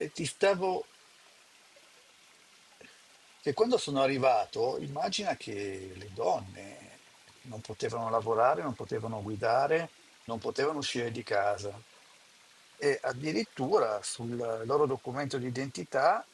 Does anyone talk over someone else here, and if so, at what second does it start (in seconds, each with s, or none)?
none